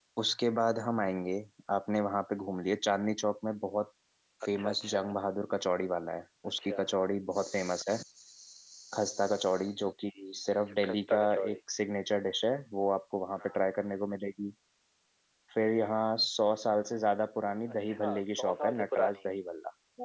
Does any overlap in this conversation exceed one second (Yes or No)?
Yes